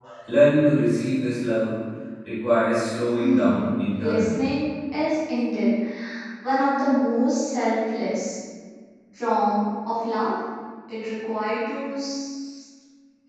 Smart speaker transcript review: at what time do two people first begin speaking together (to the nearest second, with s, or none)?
3 s